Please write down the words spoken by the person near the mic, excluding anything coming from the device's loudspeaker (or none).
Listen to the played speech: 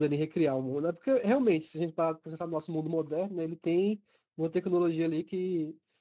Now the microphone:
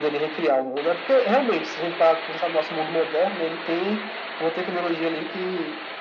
none